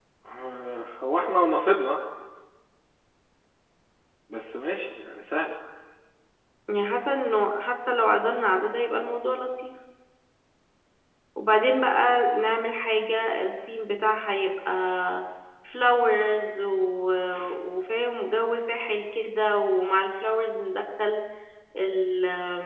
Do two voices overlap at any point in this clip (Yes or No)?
No